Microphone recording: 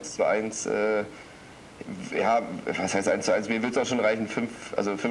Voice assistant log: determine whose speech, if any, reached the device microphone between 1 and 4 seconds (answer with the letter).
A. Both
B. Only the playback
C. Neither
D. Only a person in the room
B